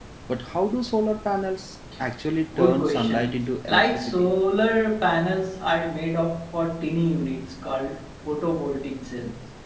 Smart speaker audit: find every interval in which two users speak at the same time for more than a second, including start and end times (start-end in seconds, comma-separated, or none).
2.6-4.3